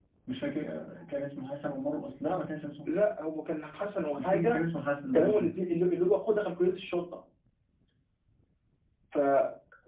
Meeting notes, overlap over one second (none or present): none